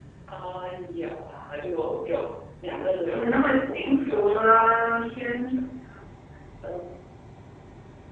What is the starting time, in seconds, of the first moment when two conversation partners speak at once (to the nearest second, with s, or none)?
3 s